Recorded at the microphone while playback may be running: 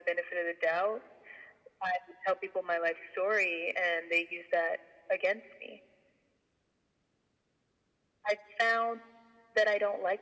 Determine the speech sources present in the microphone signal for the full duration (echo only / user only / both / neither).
echo only